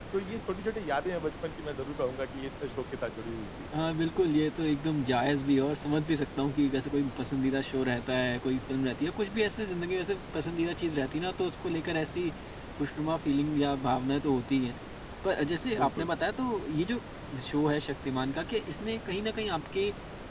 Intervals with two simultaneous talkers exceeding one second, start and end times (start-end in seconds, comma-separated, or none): none